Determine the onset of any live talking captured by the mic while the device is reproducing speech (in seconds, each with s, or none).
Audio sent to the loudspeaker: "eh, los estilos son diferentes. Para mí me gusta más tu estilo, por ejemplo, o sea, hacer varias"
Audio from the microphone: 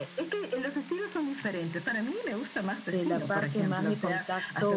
2.9 s